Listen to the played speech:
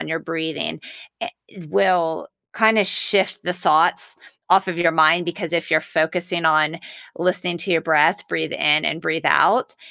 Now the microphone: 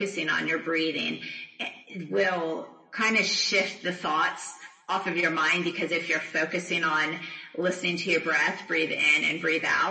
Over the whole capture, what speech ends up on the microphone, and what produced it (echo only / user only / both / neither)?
echo only